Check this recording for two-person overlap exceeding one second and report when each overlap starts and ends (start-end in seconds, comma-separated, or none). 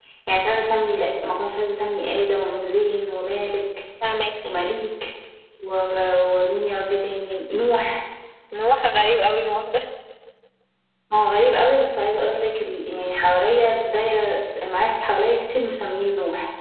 none